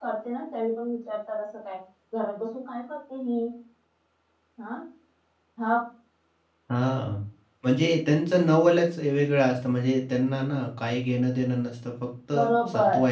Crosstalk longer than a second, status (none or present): none